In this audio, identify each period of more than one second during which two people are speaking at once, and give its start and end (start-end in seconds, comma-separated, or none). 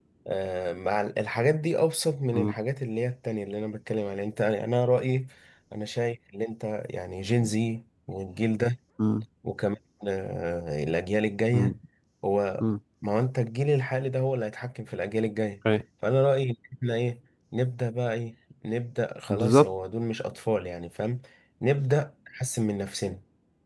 none